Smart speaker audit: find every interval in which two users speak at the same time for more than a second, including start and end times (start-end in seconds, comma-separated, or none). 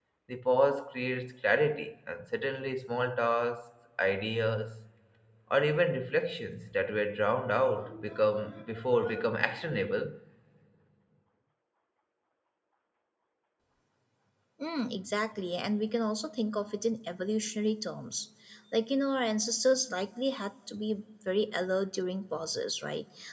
none